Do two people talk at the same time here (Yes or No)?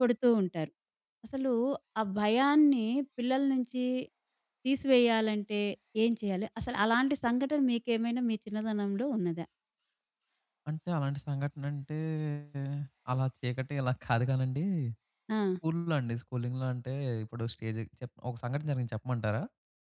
No